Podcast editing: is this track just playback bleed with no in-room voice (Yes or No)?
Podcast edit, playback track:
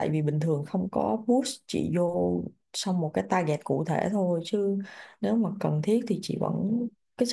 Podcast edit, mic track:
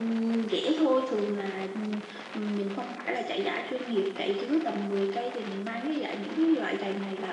No